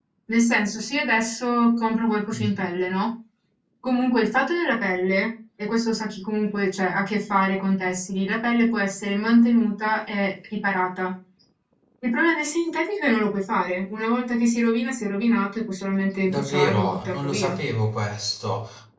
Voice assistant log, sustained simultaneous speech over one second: present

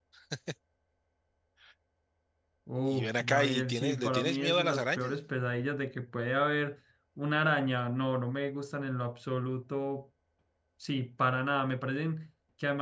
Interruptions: present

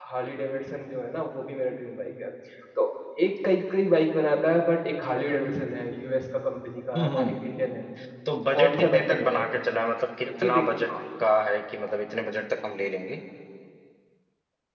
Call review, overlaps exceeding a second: present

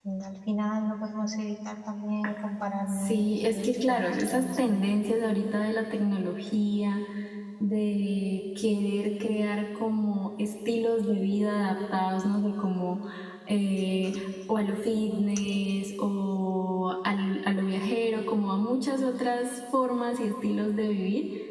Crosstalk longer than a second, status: present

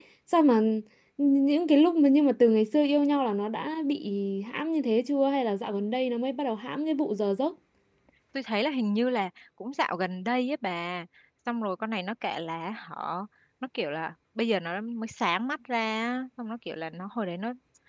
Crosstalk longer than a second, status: none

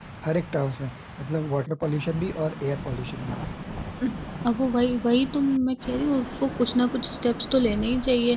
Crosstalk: none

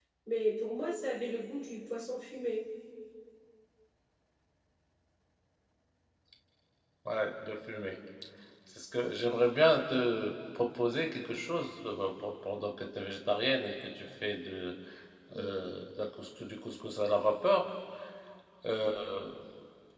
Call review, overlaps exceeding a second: none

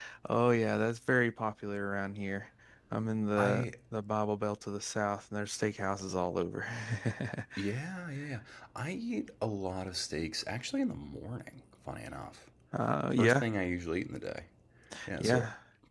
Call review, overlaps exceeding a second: none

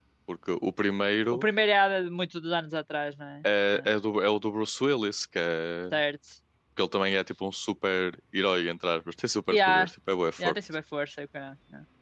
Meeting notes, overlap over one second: none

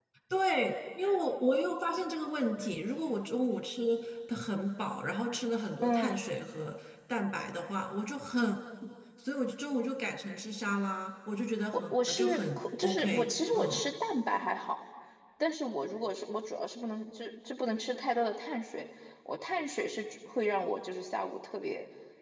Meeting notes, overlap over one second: present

